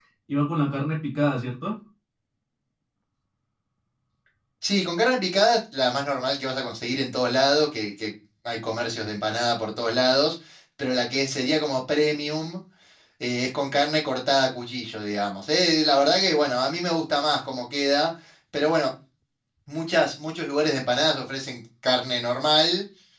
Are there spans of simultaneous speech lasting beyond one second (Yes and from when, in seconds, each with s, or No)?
No